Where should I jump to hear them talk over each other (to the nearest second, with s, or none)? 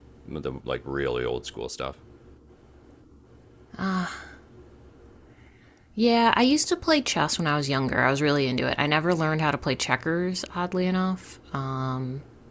none